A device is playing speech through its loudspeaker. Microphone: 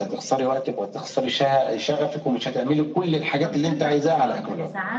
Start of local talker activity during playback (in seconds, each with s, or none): 3.4 s